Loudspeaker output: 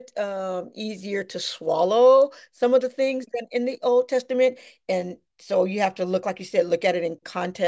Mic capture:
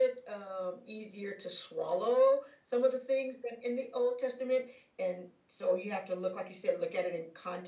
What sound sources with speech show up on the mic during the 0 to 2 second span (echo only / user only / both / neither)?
echo only